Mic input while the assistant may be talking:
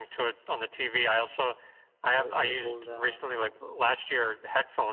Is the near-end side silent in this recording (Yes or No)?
No